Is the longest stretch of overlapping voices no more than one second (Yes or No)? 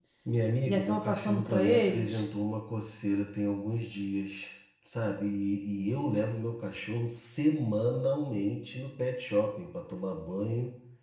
No